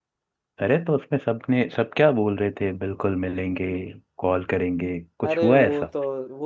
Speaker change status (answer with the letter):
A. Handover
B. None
A